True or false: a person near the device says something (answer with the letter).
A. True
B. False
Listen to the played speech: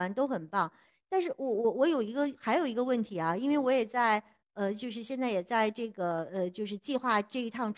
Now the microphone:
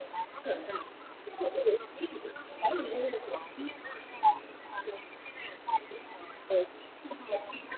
B